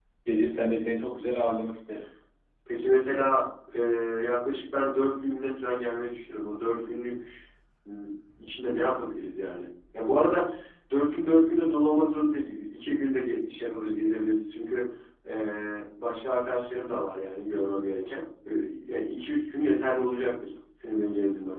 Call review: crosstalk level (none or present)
none